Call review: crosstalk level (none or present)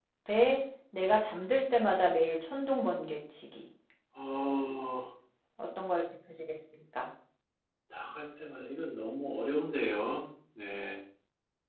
none